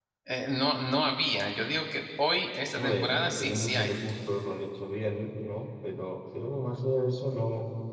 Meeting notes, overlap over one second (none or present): present